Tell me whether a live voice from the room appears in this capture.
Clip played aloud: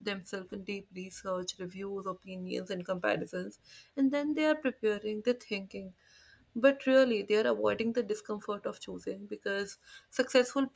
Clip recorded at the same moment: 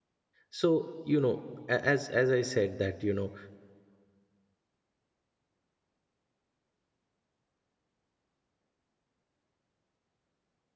Yes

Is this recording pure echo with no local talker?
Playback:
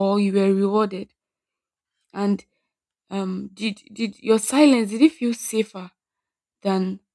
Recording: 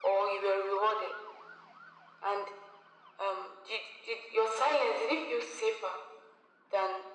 Yes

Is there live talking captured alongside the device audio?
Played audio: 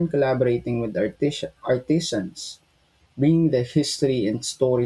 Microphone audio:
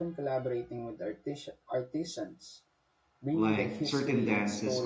Yes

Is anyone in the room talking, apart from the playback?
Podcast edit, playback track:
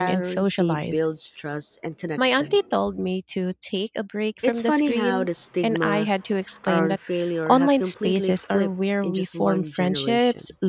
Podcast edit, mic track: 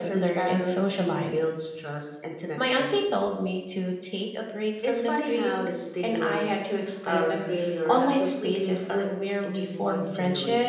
No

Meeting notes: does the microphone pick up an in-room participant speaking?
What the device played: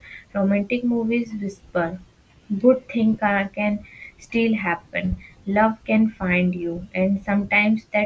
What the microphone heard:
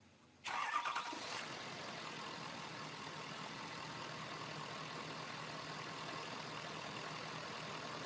No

